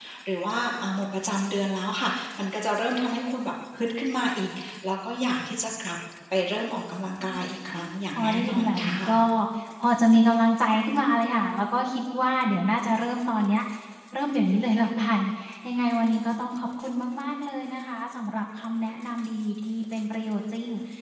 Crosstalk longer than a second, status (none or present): present